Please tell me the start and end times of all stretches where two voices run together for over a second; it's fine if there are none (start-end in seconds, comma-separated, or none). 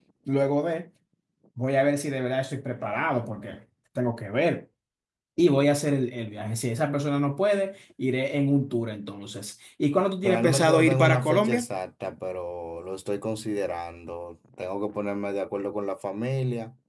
10.2-11.7